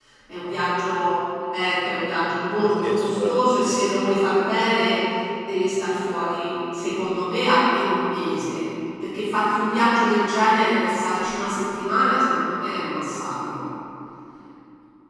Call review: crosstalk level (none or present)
present